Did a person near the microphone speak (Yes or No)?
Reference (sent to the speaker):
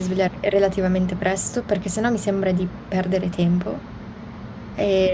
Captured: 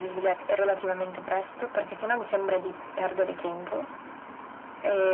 No